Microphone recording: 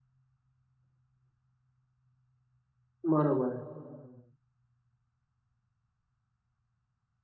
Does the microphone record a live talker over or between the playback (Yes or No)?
Yes